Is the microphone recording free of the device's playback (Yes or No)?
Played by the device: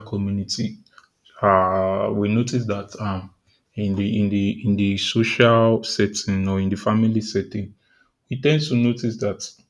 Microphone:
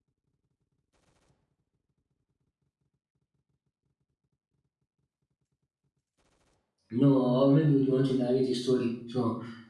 Yes